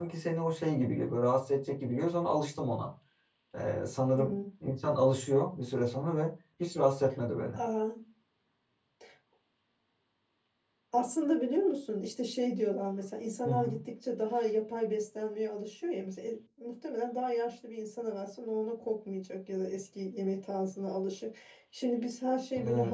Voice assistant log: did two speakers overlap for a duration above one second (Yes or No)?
No